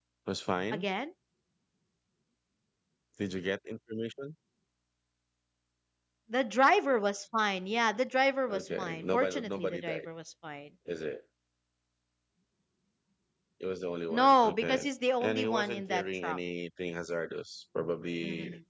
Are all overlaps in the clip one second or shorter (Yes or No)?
No